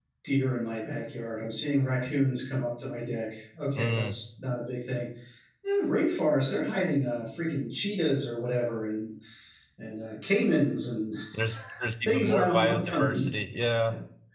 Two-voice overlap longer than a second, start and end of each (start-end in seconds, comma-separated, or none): 12.0-13.3